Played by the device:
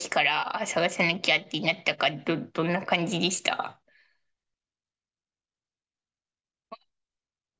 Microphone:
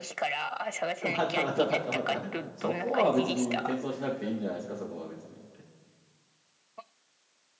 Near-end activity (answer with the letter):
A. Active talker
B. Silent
A